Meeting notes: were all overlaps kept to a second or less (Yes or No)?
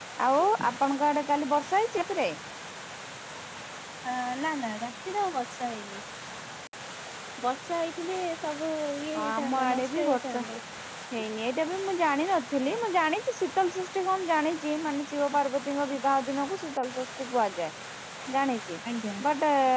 No